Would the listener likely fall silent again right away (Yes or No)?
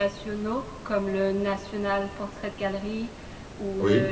Yes